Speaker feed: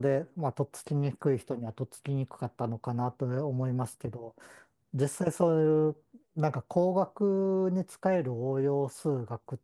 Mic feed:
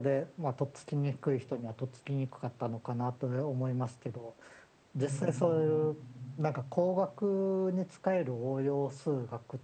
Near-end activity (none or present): present